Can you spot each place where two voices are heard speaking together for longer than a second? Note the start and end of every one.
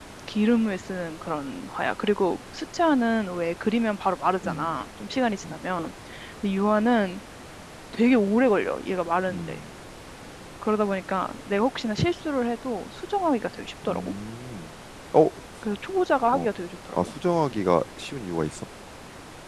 none

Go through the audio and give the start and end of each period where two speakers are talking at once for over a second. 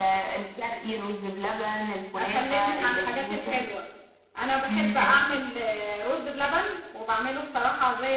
2.2-3.6

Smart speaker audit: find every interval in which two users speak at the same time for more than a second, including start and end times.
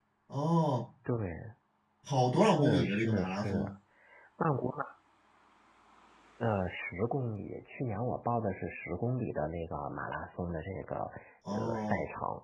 2.4-3.7

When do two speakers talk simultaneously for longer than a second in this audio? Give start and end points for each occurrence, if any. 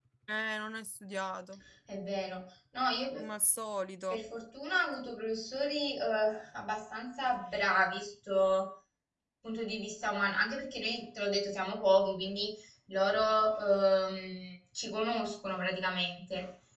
none

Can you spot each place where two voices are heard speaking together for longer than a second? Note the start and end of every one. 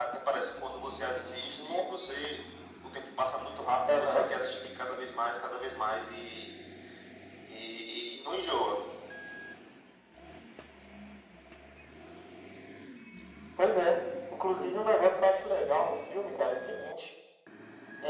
none

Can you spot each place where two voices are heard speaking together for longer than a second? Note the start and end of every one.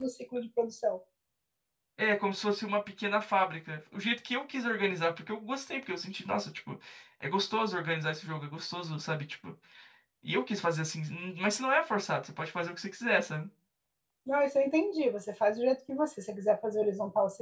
none

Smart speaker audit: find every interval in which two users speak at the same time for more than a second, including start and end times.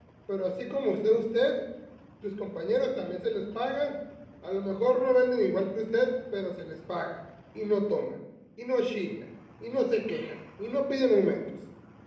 none

